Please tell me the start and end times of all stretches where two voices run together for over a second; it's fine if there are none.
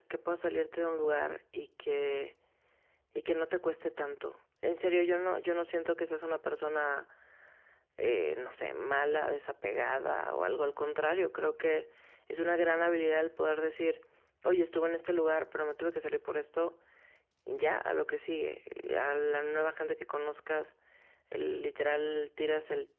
none

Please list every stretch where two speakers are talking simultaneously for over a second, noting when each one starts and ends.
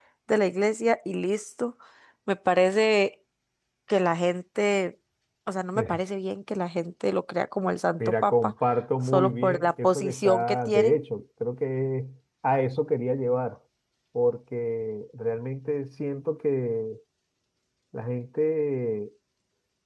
9.0-11.0

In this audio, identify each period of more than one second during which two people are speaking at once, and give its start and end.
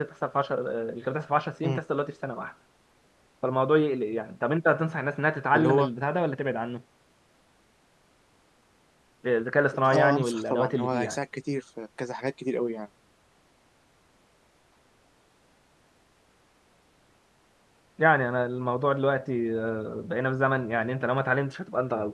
9.9-11.2

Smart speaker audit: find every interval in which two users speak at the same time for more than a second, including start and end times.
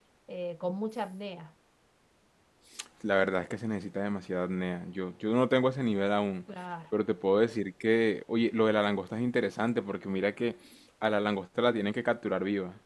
none

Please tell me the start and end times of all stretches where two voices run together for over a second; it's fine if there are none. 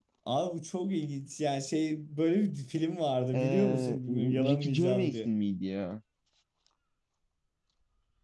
3.3-5.3

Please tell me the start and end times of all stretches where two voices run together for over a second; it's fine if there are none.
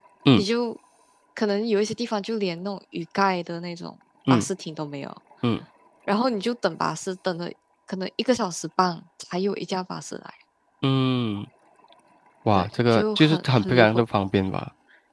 12.6-14.0

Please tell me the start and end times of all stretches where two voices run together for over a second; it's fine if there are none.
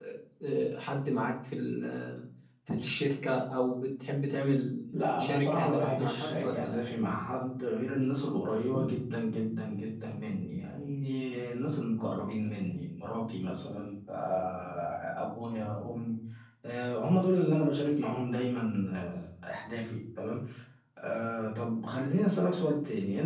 4.9-6.8

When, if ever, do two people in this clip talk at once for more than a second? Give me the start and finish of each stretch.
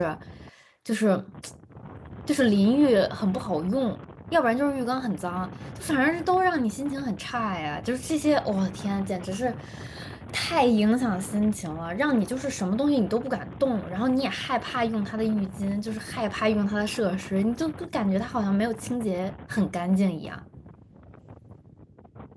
none

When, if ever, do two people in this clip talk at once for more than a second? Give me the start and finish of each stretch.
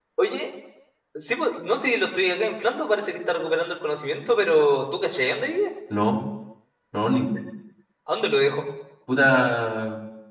none

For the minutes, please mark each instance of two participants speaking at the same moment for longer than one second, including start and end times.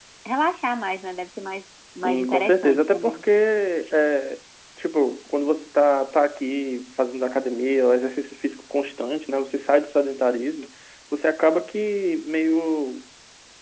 2.0-3.2

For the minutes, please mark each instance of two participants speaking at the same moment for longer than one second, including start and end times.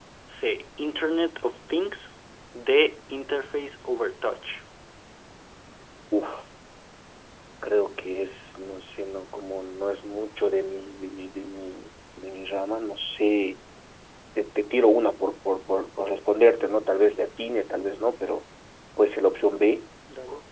none

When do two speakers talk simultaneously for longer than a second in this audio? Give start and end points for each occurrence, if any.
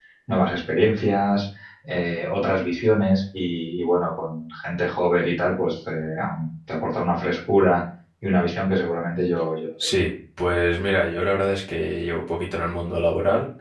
none

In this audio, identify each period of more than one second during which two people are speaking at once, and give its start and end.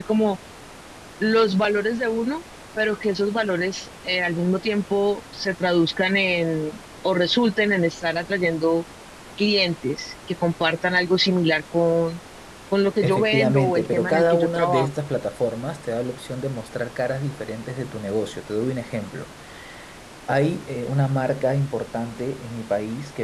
13.0-14.9

